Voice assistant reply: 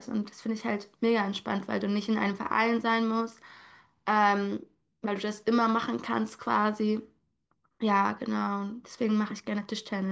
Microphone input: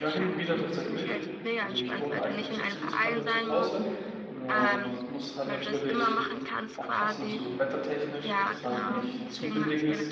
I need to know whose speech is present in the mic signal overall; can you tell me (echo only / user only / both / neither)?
both